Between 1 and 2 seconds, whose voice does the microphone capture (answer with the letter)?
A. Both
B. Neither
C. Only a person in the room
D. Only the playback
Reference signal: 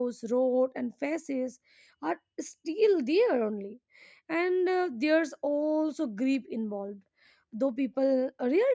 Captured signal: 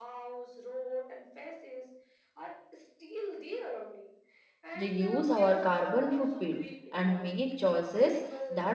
D